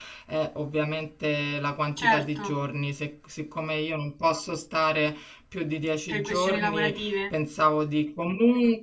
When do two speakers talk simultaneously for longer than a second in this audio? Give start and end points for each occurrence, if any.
6.1-7.3

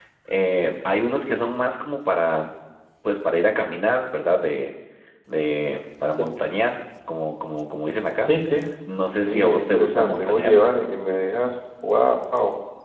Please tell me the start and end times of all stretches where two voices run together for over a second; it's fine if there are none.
9.2-10.6

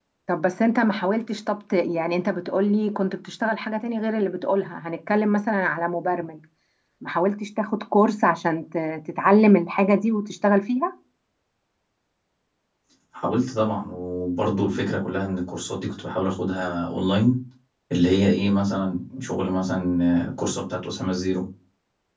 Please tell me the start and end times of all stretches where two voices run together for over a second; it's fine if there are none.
none

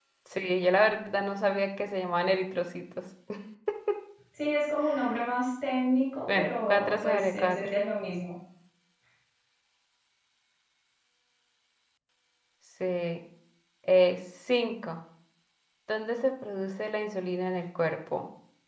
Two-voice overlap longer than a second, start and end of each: 6.3-7.6

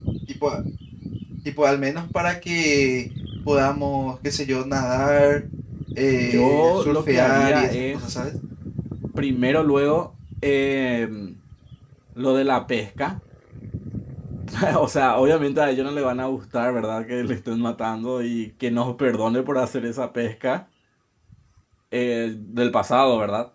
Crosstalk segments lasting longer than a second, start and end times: 6.1-8.0

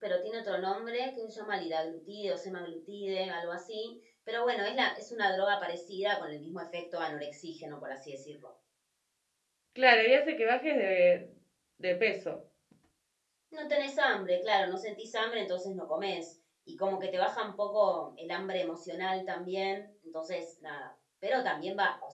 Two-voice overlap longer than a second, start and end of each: none

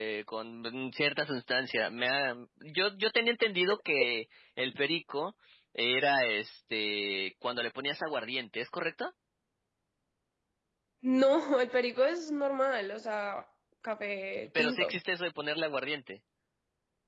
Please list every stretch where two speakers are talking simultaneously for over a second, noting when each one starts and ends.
none

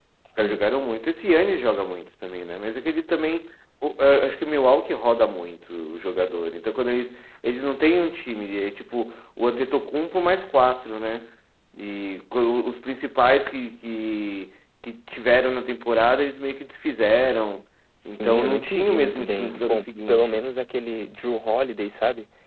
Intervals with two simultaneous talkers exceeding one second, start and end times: 18.1-20.4

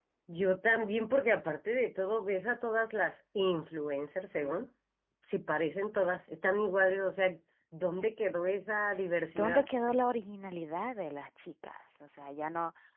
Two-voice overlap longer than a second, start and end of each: none

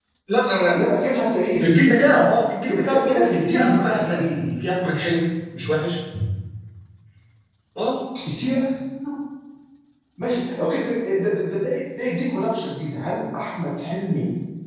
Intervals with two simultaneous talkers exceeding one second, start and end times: 2.7-4.6

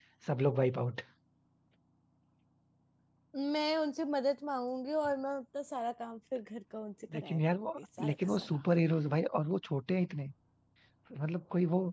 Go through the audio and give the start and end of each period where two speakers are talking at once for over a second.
7.1-8.5

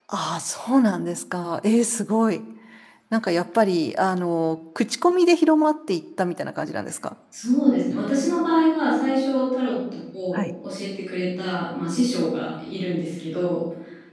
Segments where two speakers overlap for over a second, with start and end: none

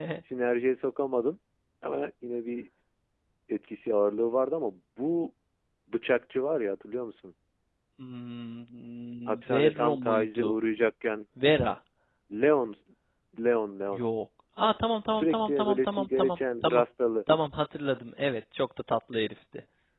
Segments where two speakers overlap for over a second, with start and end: 9.3-10.5, 15.1-16.8

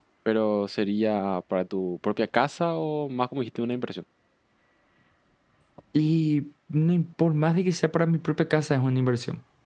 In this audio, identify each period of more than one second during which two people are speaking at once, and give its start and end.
none

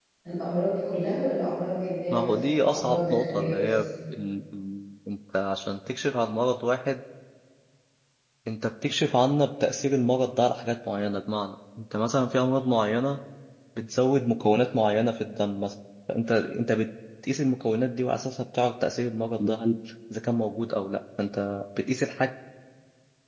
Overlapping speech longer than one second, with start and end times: 2.1-3.7

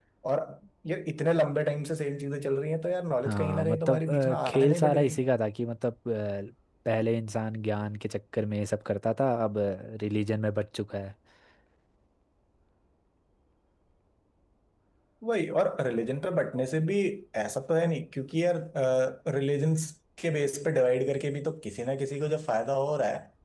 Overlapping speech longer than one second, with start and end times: 3.2-5.1

